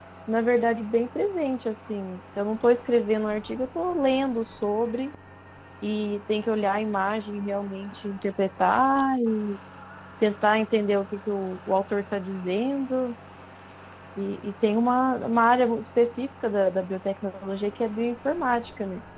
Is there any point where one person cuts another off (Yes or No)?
No